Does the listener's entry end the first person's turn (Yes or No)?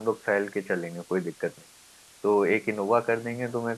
No